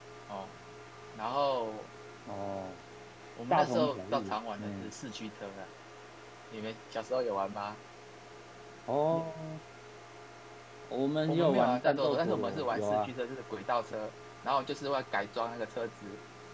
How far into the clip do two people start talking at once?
3.5 s

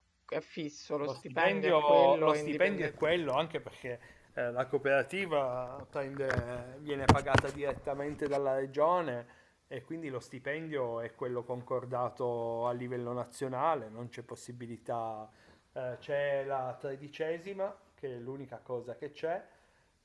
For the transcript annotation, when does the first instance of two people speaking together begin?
1.0 s

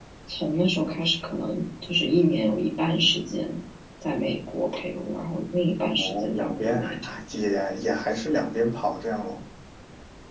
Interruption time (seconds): 6.0 s

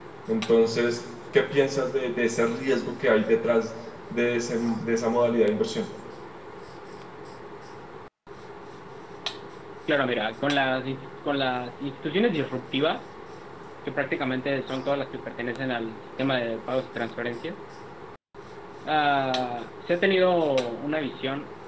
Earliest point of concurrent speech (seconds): none

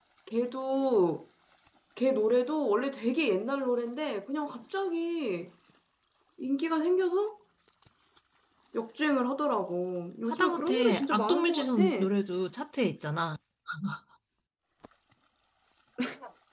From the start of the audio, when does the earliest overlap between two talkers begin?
10.3 s

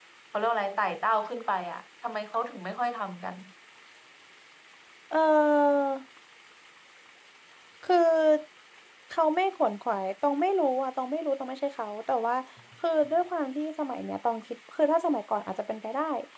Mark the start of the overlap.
none

